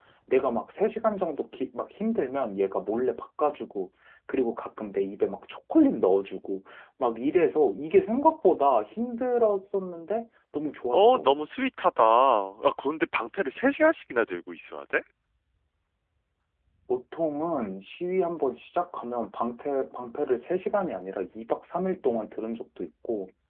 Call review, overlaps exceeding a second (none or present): none